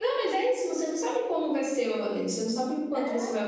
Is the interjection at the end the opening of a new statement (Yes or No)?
No